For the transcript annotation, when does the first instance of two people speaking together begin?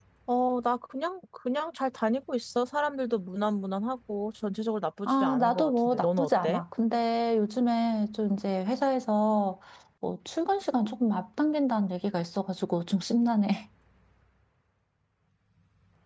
5.1 s

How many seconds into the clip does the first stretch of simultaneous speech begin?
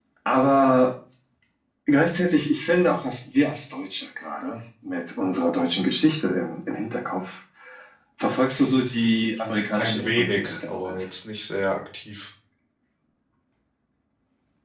9.8 s

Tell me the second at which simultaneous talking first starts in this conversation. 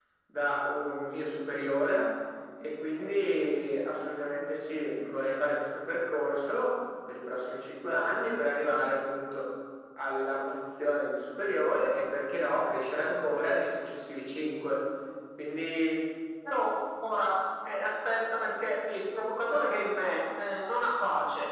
none

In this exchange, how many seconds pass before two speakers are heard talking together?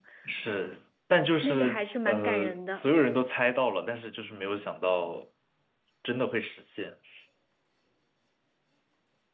1.4 s

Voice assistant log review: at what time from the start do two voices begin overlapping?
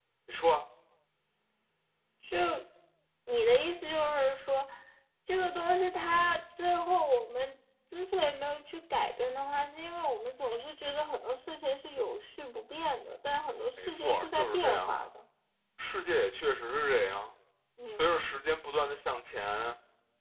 13.8 s

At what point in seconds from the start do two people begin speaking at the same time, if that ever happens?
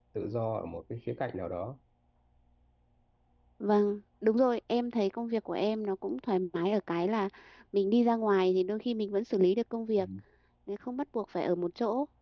none

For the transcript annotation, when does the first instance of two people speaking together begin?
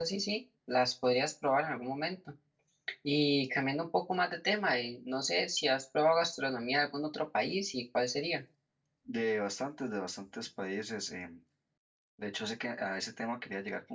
none

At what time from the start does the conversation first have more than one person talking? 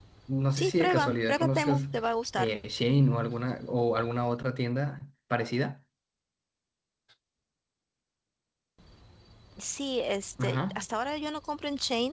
0.6 s

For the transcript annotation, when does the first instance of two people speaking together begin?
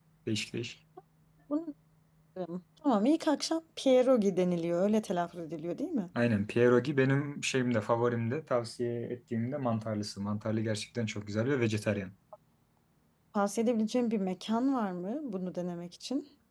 none

